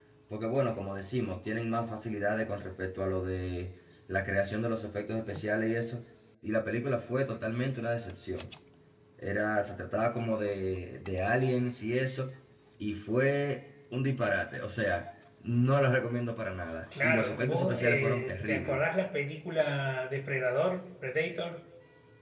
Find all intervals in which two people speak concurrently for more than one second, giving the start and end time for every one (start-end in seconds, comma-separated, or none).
17.0-18.8